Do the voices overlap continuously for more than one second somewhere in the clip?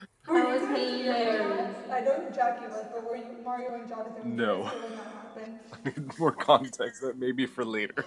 Yes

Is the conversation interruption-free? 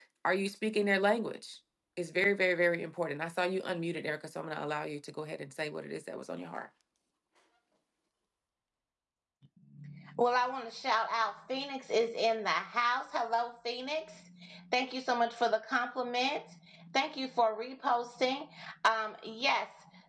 Yes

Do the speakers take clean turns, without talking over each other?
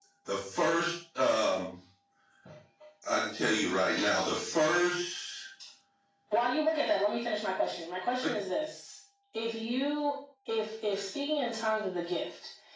Yes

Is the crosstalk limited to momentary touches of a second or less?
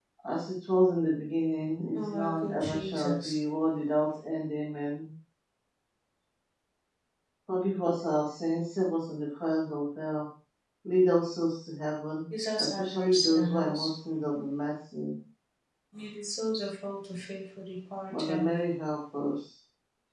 No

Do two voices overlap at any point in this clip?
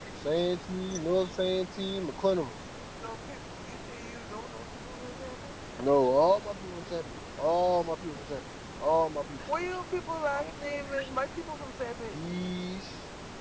No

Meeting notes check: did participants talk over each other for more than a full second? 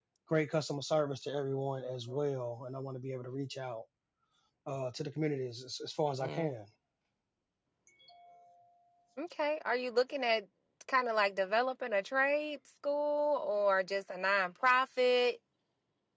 No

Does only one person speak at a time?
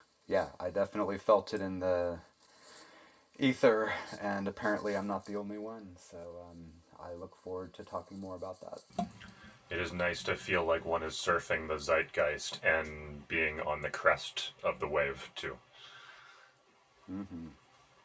Yes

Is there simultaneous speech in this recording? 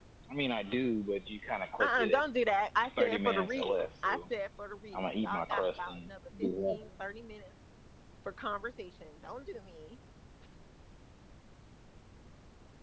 Yes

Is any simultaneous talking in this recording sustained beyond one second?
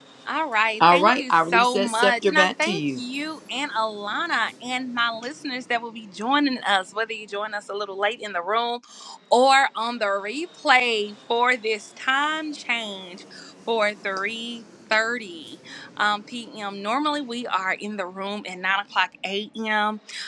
Yes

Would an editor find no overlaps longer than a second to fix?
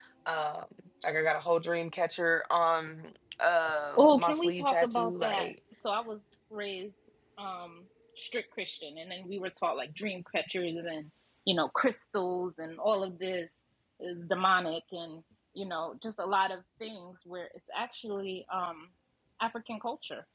No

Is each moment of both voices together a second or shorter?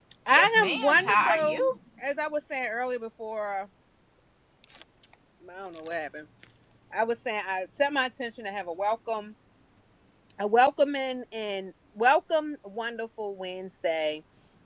No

